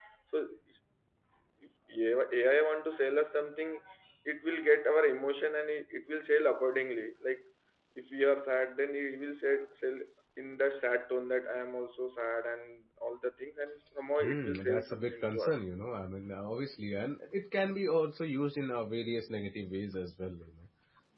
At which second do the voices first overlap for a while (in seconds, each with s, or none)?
14.2 s